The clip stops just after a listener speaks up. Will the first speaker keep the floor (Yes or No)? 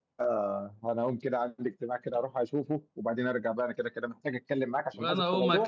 No